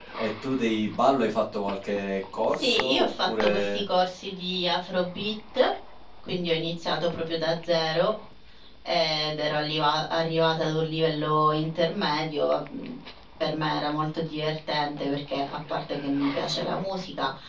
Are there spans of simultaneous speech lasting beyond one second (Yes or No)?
Yes